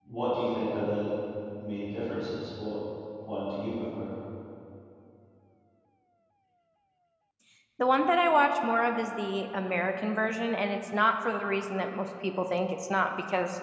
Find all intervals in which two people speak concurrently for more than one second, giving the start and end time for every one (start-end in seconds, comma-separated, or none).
none